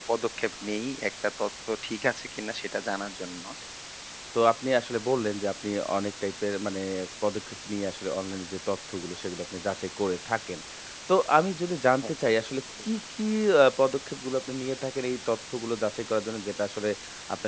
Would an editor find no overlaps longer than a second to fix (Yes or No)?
Yes